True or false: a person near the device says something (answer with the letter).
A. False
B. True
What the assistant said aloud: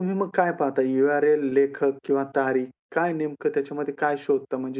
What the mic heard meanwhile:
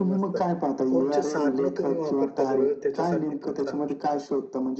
B